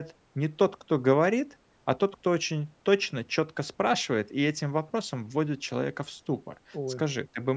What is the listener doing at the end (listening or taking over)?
listening